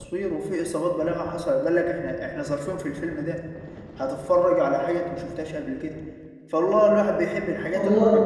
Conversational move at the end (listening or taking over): listening